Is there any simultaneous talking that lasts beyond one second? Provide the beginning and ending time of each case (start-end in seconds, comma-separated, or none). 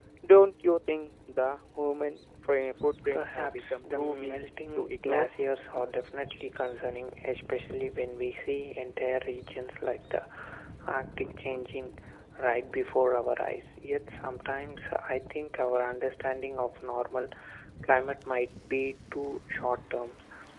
3.1-4.4